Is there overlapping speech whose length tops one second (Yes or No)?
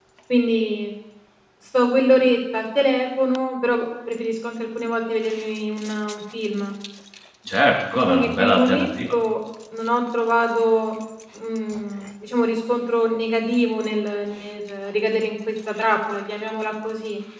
Yes